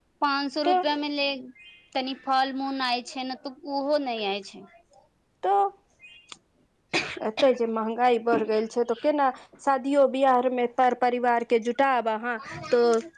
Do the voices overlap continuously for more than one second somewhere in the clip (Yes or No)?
No